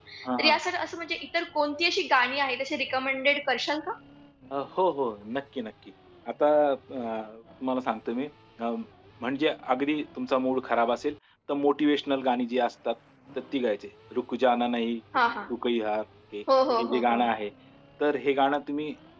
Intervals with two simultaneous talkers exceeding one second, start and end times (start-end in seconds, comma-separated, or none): none